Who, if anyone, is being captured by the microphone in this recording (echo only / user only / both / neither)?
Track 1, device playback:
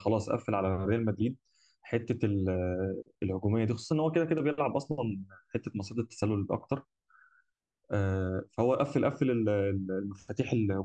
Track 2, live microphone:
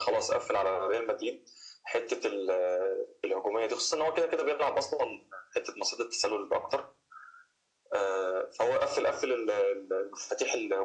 echo only